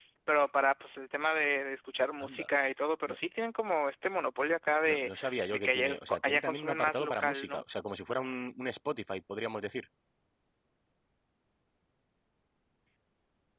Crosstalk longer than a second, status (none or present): present